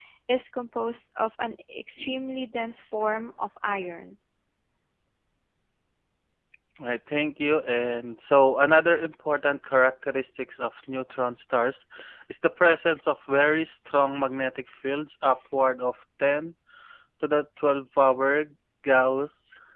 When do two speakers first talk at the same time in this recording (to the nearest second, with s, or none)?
none